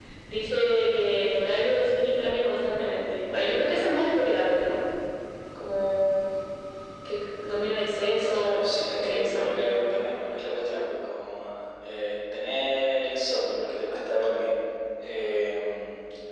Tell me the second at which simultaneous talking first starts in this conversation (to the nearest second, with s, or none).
8 s